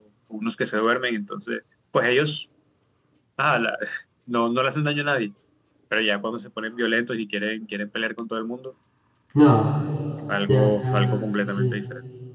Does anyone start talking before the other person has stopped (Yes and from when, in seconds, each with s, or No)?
Yes, from 10.5 s